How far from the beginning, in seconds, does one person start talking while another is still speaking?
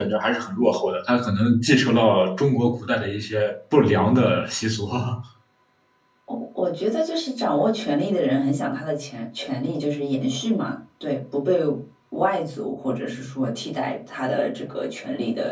none

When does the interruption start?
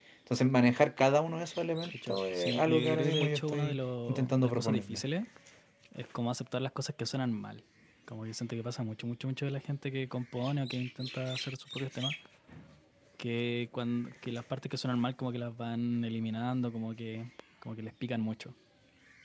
1.9 s

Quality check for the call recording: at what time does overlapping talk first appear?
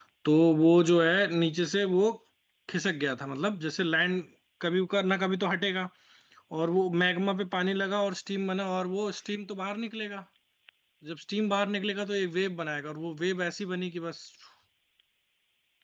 none

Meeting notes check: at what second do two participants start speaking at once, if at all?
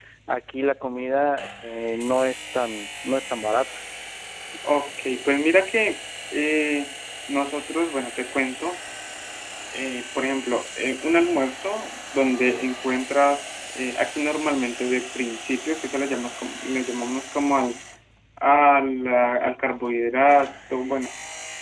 none

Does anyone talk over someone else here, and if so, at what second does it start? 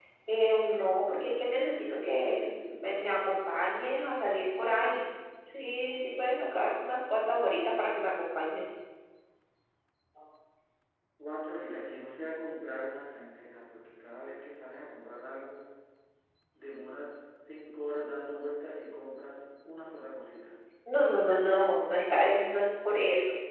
none

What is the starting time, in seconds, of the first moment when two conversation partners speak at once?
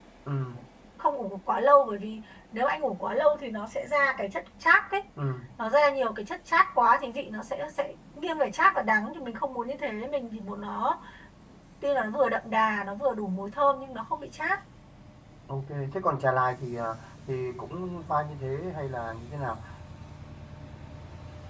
none

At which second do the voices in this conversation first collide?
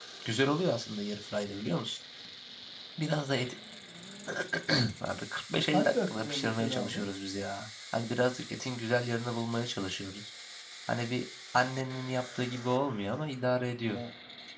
5.7 s

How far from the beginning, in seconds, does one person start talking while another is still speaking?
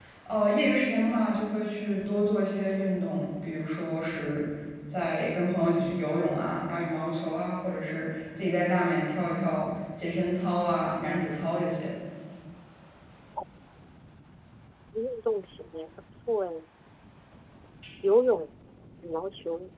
none

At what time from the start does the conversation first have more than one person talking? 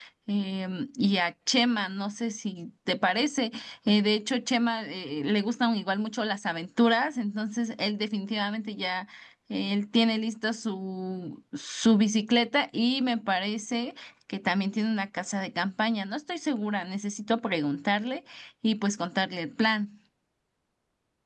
none

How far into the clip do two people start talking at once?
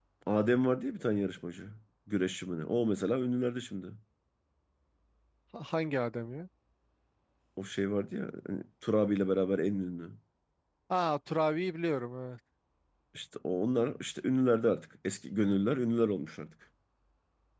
none

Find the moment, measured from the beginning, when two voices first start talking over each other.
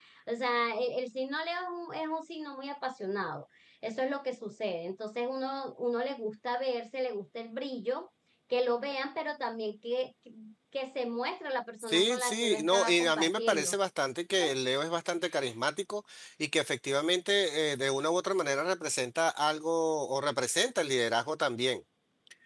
11.8 s

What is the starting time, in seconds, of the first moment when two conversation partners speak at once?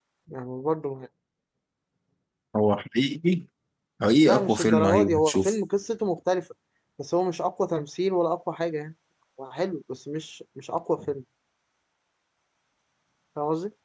4.2 s

